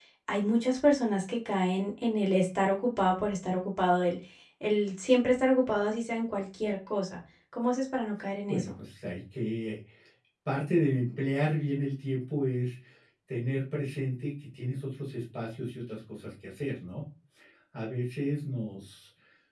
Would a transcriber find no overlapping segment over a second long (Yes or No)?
Yes